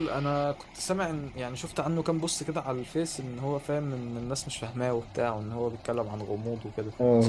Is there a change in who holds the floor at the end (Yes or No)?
Yes